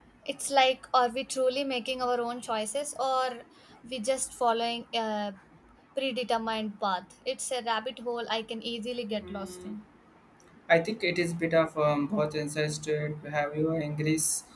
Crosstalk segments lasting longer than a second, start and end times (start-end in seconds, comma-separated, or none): none